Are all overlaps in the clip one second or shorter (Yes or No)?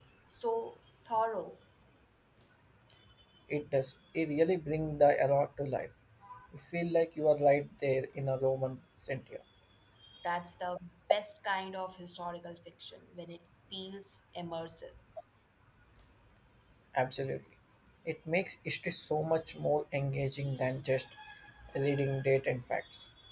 Yes